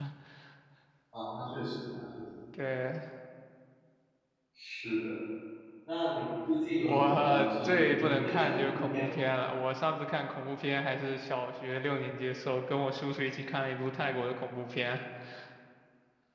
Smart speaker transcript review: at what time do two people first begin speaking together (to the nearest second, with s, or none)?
7 s